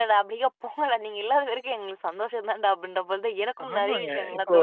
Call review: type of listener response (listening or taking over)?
taking over